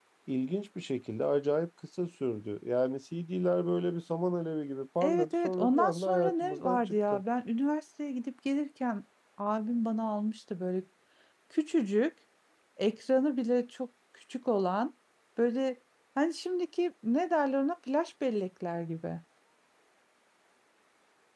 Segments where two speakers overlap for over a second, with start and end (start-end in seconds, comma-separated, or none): 5.0-7.2